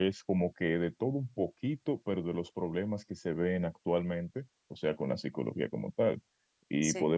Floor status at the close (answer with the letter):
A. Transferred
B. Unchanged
B